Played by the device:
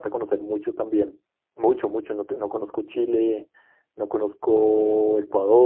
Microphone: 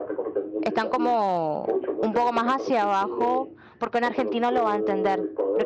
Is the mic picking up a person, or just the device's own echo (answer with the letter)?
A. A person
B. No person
A